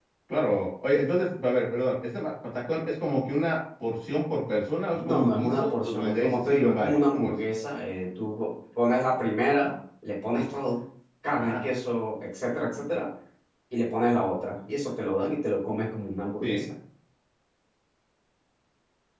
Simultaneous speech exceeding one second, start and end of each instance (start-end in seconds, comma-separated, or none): 4.9-7.3